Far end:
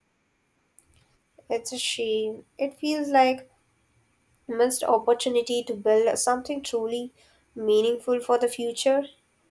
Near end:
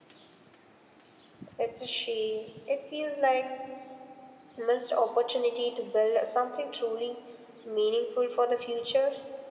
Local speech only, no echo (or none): none